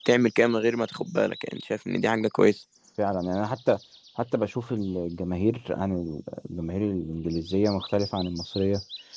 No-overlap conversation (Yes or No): Yes